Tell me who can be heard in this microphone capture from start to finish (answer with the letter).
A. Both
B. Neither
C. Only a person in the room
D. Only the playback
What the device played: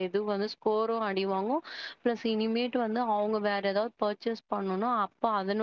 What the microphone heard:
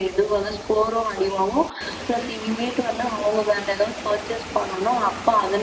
D